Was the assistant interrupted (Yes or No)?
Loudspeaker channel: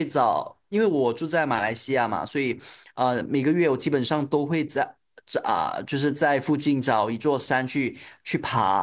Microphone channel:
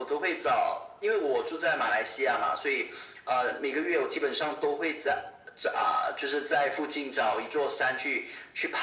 No